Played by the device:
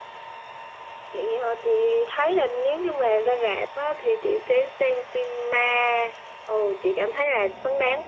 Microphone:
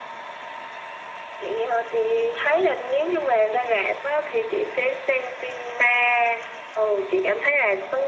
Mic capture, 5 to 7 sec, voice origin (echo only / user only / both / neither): echo only